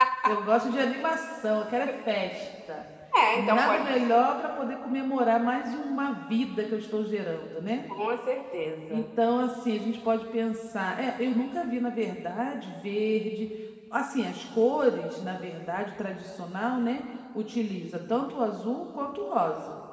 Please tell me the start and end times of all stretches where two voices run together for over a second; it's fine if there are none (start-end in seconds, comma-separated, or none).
none